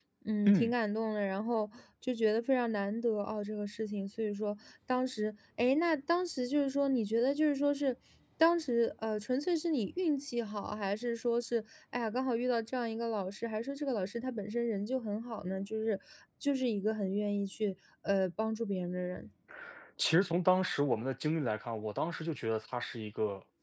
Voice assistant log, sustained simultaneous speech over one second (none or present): none